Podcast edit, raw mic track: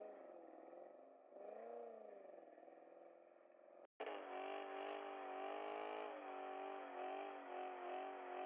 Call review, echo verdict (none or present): none